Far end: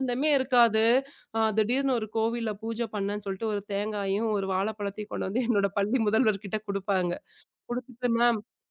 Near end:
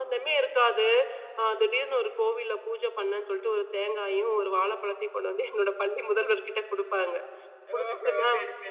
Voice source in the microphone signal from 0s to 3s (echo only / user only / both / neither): echo only